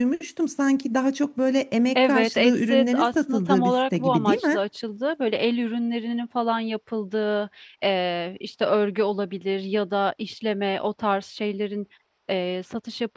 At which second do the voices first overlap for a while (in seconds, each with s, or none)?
2.0 s